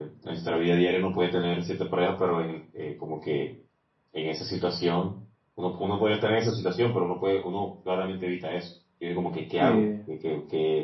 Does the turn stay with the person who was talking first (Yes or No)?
Yes